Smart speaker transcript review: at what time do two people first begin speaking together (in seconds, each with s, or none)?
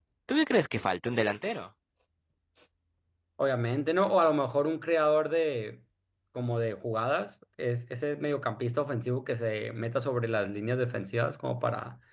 none